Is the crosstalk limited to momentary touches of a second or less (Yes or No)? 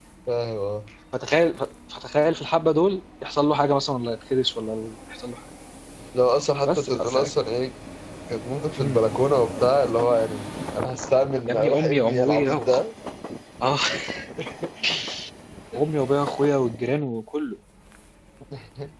No